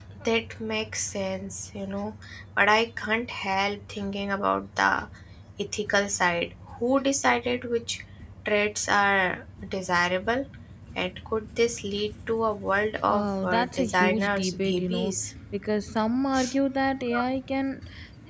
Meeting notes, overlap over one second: present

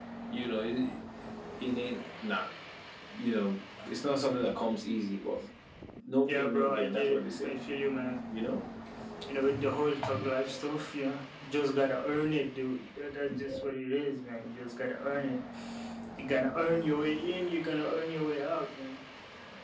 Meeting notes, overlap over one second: present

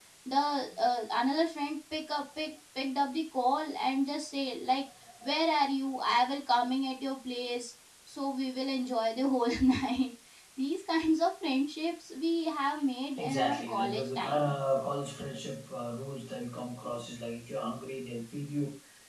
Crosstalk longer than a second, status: present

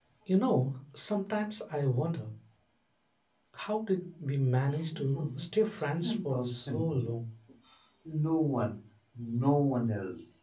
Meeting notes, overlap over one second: present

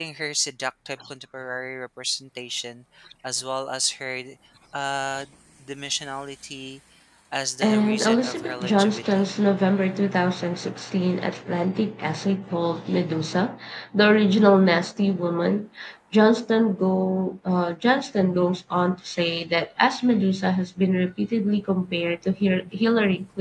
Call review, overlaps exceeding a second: present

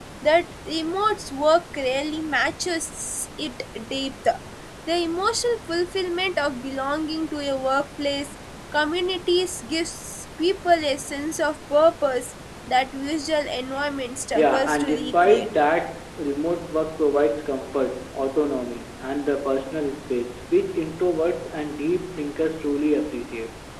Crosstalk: present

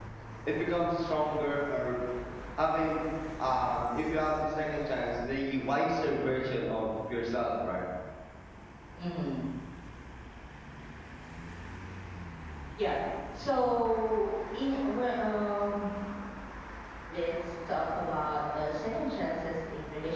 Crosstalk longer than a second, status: none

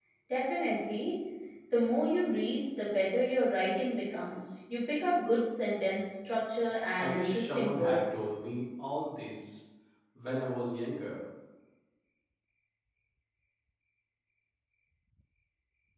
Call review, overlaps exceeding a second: present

